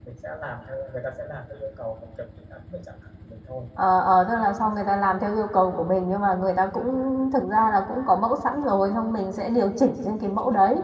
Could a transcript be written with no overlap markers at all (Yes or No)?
Yes